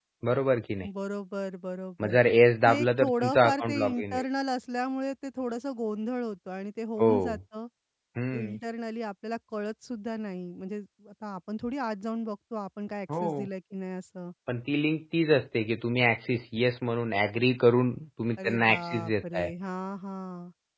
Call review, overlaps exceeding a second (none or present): present